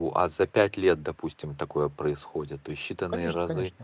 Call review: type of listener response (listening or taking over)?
taking over